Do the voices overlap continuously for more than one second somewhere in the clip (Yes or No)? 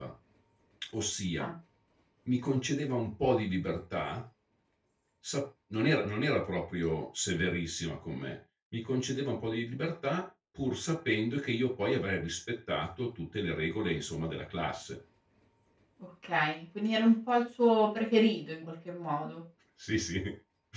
No